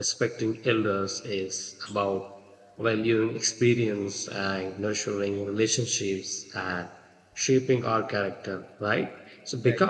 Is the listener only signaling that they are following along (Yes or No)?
Yes